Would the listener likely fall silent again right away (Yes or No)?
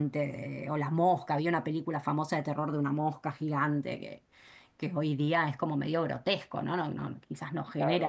No